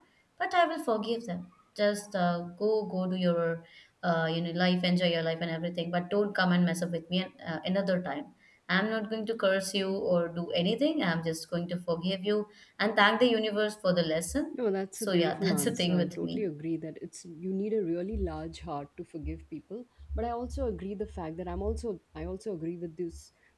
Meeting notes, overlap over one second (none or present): present